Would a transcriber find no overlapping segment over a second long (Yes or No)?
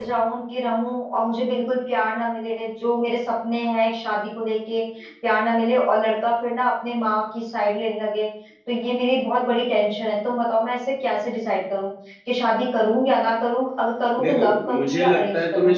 No